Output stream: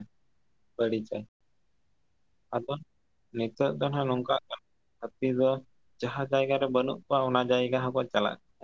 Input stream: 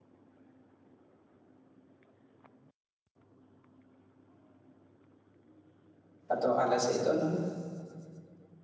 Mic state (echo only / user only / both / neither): user only